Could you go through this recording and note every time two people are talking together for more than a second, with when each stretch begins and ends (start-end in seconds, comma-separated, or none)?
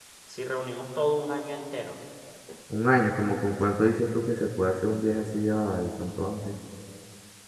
none